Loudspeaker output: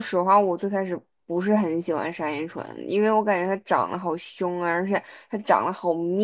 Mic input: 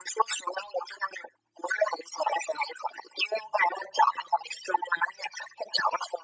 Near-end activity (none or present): none